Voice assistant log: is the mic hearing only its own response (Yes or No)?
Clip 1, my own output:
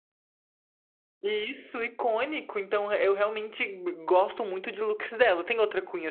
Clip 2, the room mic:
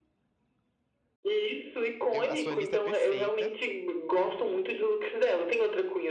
No